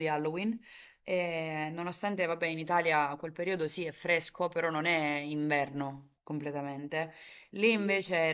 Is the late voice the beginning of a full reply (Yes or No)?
No